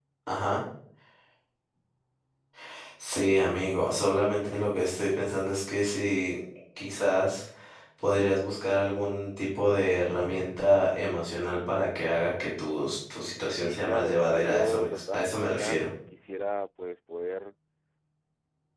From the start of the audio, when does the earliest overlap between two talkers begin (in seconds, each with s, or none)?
13.5 s